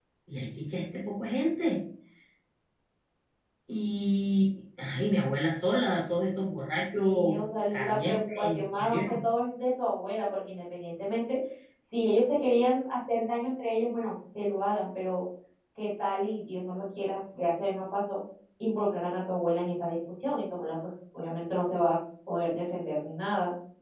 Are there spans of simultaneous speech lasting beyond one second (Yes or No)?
Yes